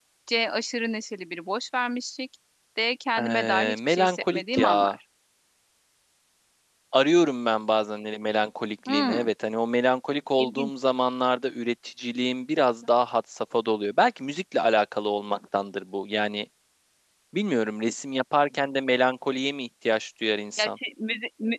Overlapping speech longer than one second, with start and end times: 3.2-5.0

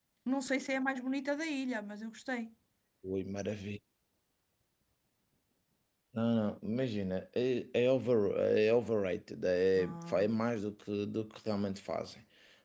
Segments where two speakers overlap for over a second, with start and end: none

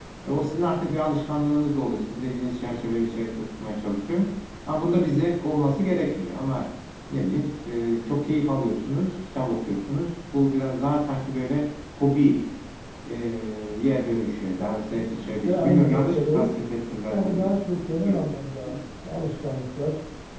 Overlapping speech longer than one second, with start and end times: 14.6-16.6, 17.1-18.3

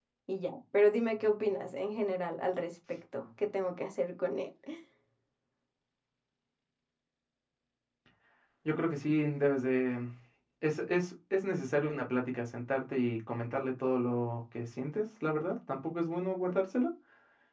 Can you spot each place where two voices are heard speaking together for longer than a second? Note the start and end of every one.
none

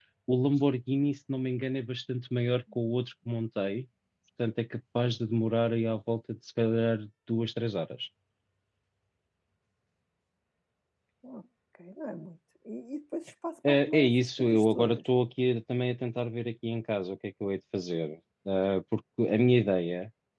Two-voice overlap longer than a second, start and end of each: 13.7-15.0

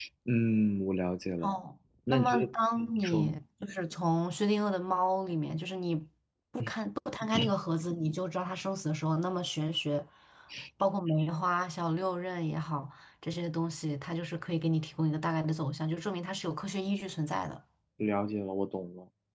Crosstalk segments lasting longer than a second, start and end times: 2.1-3.3

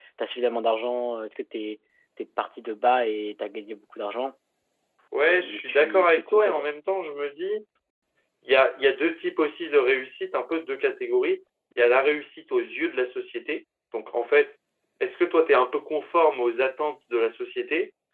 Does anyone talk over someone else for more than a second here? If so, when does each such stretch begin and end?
5.3-6.7

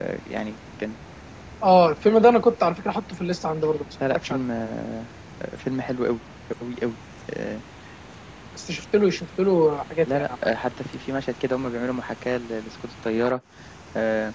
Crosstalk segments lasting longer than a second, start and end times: none

